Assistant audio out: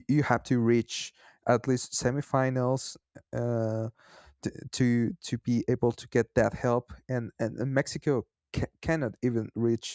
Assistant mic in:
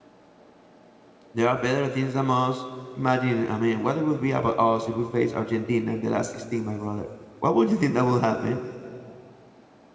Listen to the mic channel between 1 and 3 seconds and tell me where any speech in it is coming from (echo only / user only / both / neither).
user only